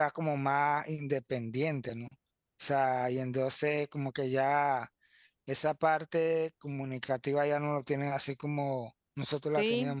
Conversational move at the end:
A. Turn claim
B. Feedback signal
A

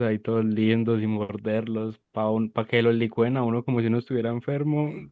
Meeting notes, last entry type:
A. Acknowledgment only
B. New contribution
B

